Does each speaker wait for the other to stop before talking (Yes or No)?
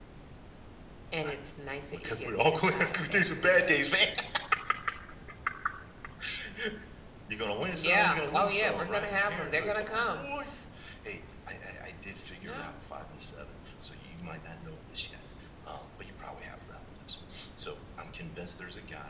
No